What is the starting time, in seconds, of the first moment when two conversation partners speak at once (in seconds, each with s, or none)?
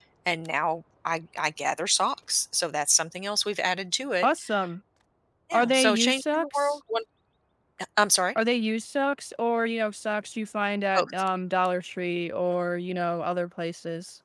5.5 s